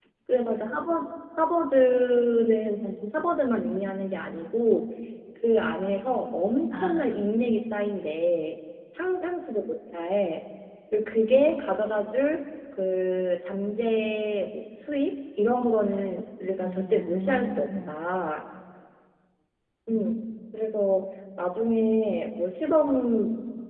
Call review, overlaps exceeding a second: present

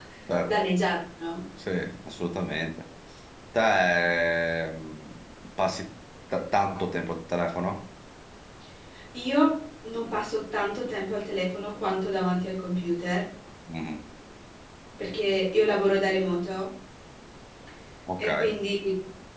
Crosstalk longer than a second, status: none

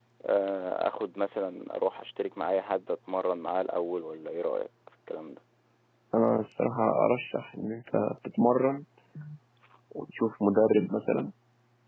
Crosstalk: none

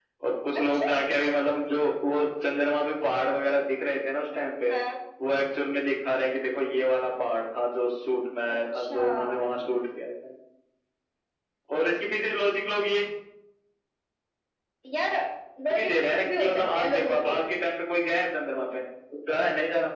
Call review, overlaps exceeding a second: present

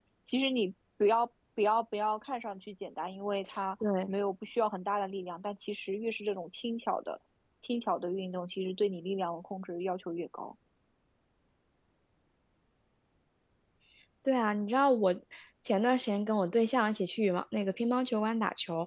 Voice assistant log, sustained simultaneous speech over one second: none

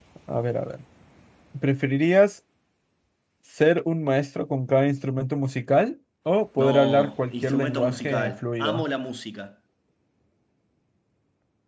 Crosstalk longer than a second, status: present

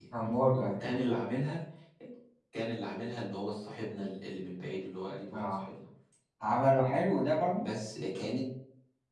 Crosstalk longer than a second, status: none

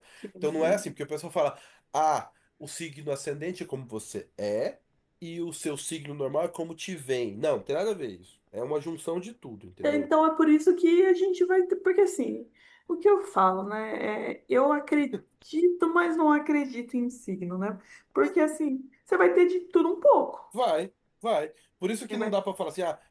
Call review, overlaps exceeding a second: none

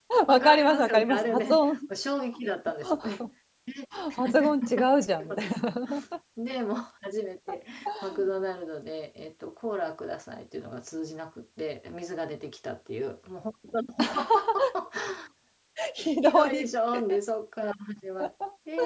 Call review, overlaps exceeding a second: present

